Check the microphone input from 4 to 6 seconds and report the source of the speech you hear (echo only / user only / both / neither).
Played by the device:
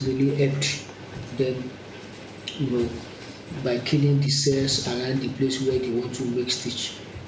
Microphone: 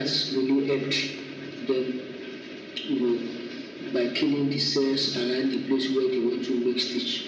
echo only